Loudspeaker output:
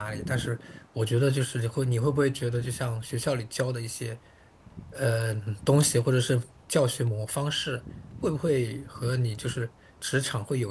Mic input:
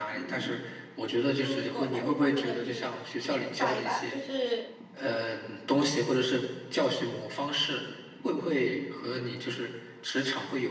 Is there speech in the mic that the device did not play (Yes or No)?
Yes